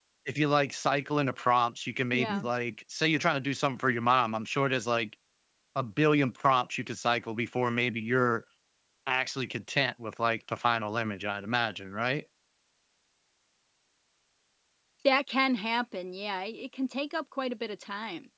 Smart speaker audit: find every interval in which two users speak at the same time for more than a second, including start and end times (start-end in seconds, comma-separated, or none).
none